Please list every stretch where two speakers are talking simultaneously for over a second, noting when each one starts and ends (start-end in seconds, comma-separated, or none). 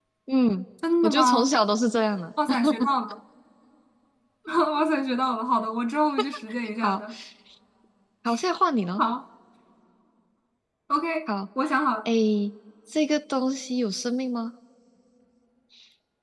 none